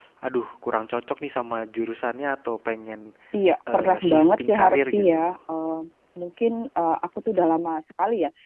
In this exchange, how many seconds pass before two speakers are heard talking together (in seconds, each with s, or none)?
3.7 s